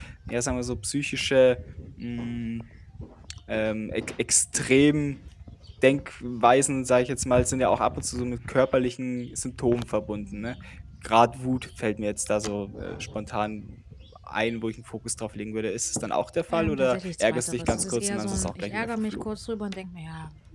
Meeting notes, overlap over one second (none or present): present